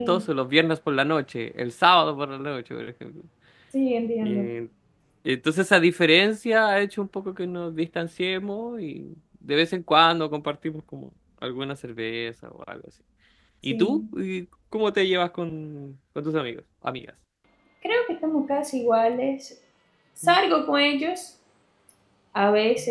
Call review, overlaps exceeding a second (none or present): none